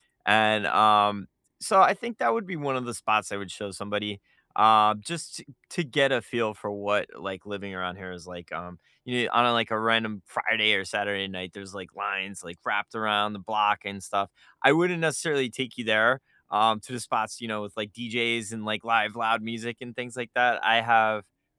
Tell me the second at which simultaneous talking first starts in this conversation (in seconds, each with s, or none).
none